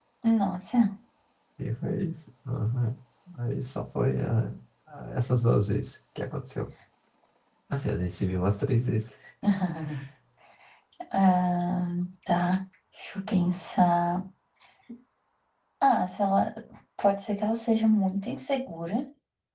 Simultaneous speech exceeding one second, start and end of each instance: none

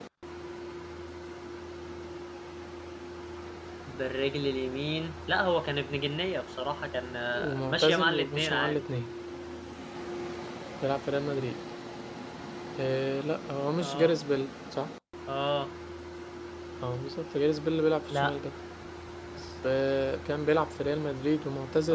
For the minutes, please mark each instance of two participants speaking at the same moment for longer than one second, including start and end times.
7.3-8.8

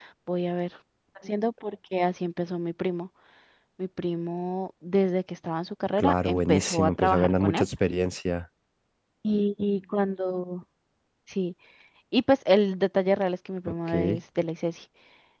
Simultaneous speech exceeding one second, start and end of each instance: 6.0-7.7

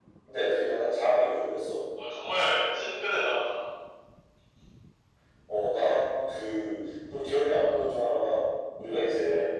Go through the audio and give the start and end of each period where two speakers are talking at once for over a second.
none

